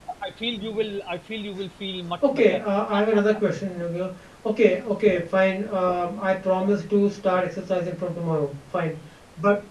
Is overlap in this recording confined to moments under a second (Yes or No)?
Yes